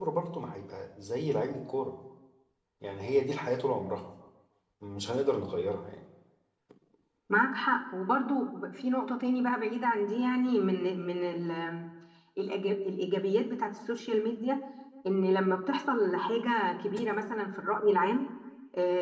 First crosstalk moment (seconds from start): none

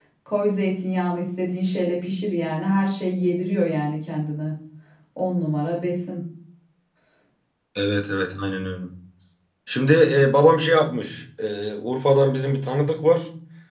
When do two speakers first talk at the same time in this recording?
none

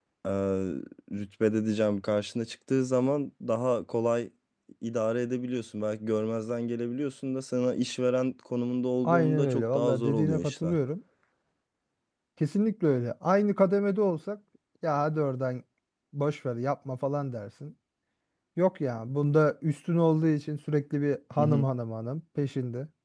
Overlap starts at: 9 s

